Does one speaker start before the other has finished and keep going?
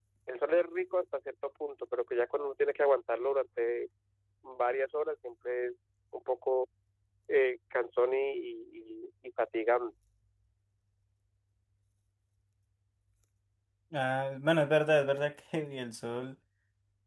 No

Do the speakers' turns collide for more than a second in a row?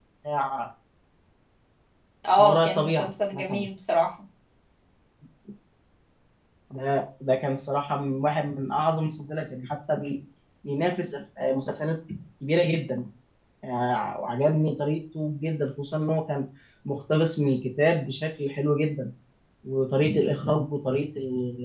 Yes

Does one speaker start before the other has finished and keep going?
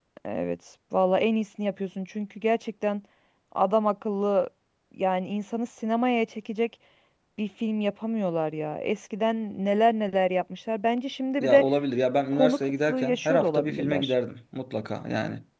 Yes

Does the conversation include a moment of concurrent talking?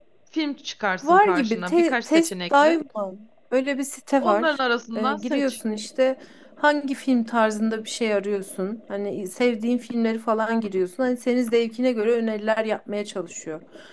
Yes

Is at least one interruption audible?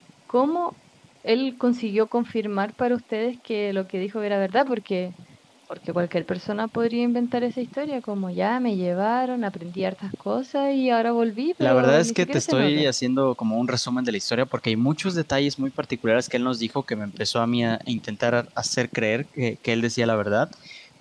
Yes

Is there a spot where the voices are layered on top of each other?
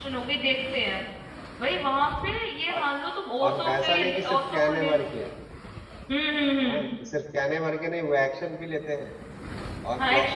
Yes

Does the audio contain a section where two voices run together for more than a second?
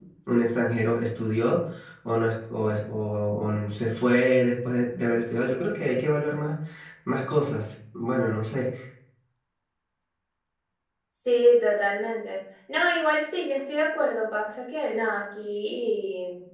No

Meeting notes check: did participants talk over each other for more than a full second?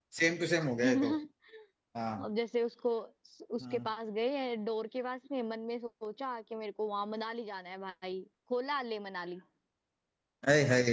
No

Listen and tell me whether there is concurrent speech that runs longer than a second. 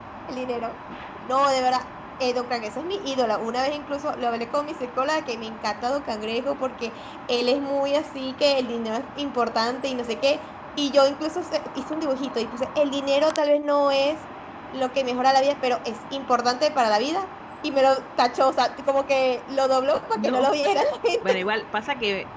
No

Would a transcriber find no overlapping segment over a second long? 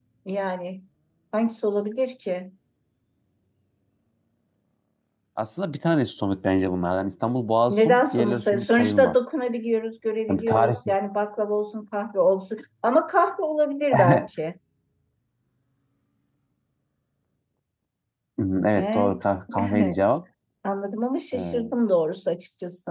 No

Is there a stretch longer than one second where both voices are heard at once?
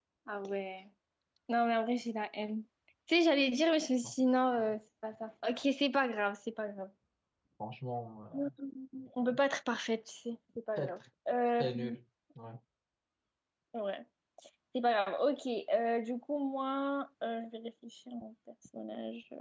No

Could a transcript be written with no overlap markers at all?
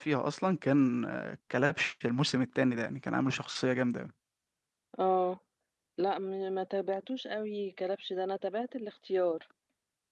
Yes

